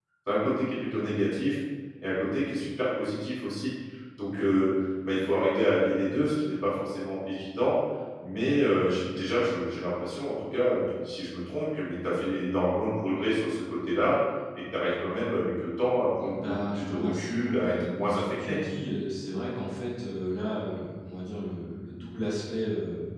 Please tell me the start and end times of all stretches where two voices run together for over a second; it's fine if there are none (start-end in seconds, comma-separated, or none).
16.2-18.6